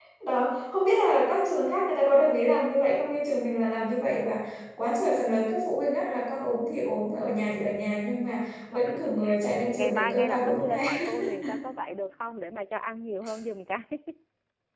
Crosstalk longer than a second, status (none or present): present